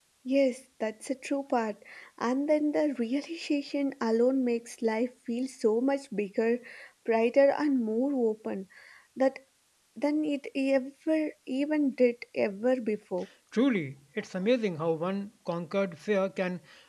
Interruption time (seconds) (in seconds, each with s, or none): none